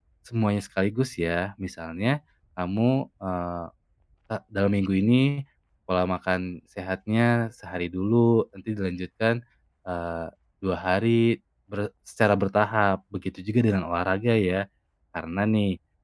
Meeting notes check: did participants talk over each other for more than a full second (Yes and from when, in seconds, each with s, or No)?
No